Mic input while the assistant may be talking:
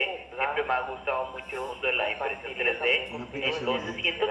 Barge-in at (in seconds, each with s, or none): 3.1 s